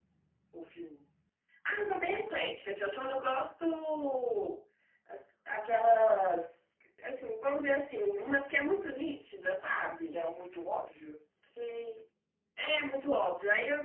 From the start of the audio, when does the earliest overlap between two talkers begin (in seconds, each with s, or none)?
none